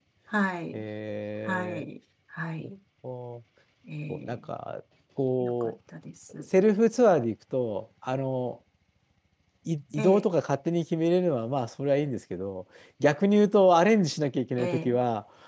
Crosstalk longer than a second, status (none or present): none